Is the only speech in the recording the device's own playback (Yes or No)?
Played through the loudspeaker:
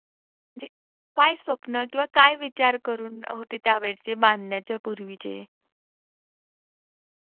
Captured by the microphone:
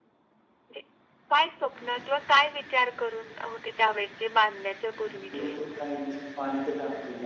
No